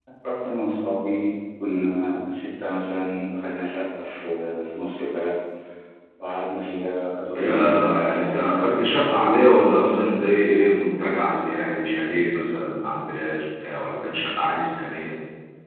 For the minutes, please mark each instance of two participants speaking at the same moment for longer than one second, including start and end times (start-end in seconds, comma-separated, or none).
7.4-8.8